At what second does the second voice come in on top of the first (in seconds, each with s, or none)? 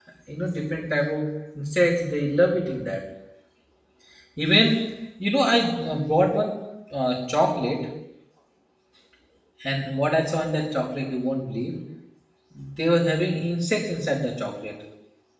none